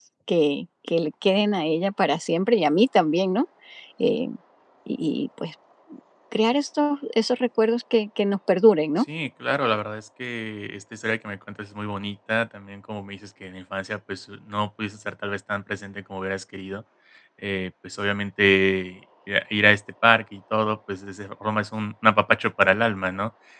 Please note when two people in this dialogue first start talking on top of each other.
none

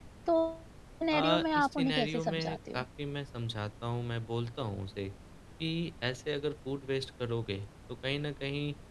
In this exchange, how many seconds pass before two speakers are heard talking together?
1.2 s

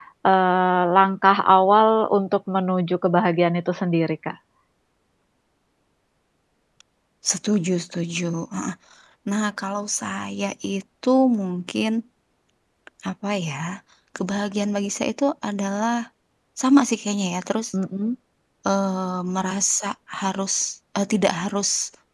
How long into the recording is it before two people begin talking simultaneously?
none

